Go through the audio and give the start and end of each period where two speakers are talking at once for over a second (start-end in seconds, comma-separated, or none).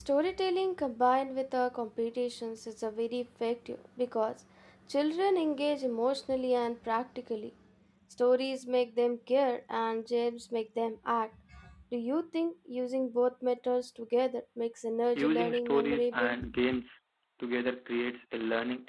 15.2-16.4